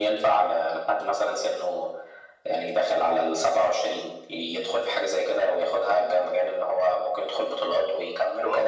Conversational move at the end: taking over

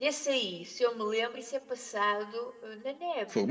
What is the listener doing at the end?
taking over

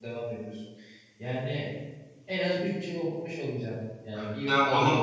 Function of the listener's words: taking over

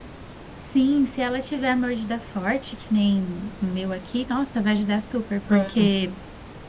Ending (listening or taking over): listening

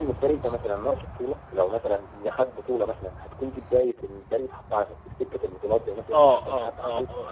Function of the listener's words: taking over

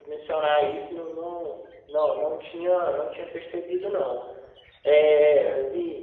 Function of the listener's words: listening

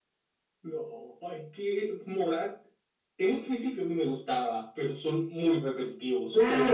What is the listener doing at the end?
taking over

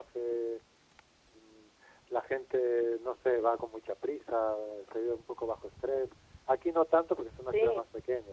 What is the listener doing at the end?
listening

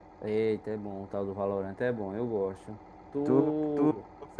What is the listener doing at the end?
taking over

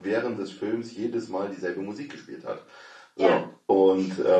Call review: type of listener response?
listening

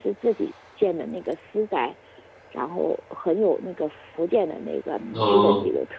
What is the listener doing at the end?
listening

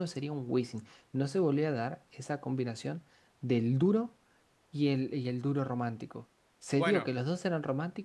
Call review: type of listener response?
listening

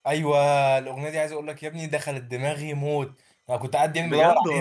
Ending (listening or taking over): listening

